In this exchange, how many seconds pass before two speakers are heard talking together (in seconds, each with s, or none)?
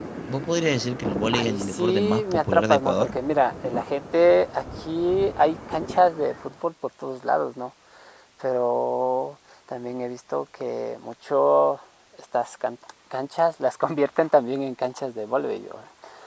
1.3 s